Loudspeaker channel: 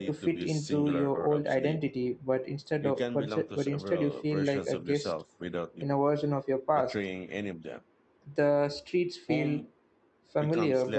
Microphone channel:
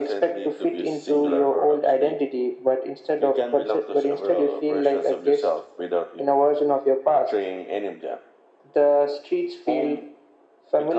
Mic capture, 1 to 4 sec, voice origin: echo only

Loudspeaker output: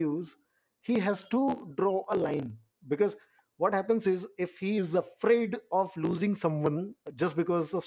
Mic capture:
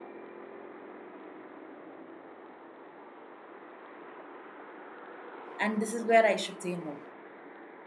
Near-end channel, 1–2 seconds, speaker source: neither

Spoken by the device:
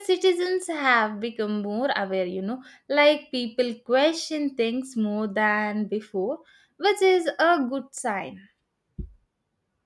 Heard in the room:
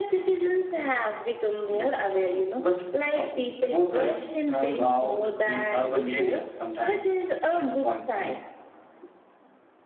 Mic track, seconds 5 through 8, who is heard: both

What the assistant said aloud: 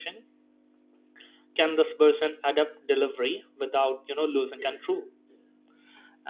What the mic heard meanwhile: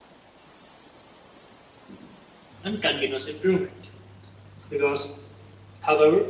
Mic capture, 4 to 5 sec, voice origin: user only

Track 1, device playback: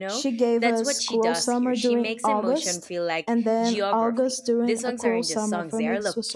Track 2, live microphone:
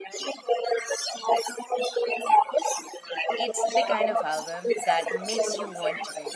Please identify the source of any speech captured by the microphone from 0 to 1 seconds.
echo only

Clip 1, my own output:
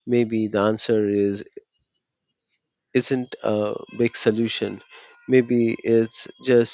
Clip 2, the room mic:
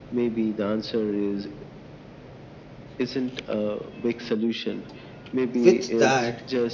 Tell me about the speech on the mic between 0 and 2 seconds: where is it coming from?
echo only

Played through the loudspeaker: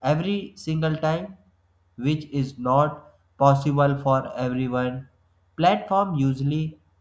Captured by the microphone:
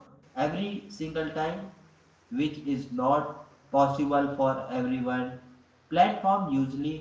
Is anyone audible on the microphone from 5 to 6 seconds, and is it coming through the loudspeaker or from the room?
echo only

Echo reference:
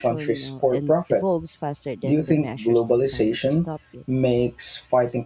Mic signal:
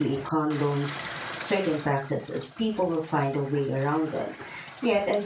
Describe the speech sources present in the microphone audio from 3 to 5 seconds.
user only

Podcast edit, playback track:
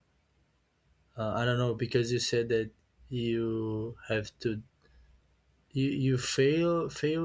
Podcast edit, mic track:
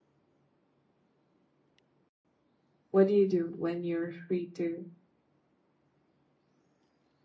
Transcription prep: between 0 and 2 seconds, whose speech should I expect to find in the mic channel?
neither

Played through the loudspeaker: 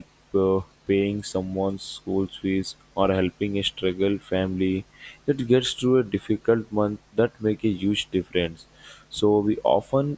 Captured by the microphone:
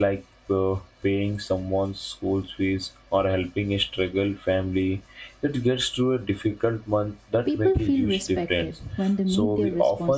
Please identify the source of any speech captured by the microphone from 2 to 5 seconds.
echo only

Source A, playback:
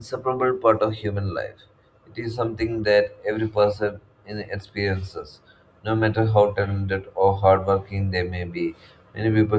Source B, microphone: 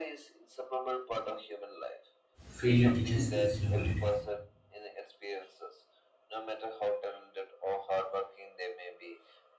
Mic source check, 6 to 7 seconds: echo only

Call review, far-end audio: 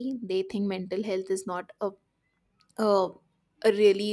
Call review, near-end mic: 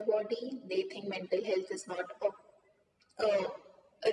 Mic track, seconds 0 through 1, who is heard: echo only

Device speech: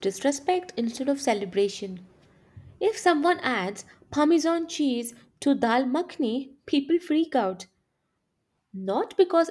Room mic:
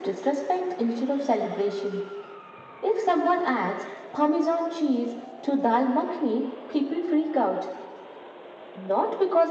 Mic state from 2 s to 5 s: echo only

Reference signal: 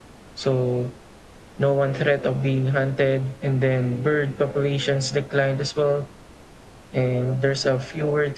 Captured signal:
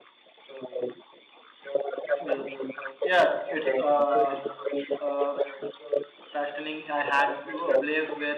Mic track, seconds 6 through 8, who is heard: both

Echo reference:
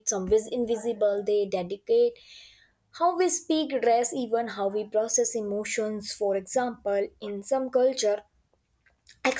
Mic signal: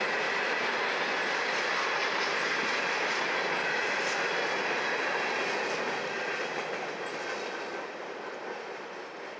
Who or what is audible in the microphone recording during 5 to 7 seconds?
neither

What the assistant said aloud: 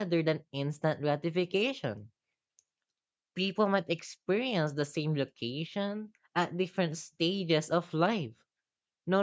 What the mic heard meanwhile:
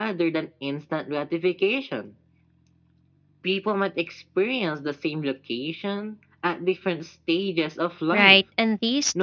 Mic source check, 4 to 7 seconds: echo only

